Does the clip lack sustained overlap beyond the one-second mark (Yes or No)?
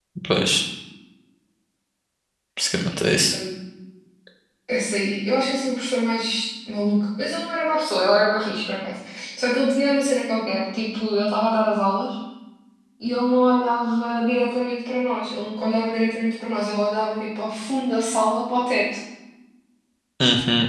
Yes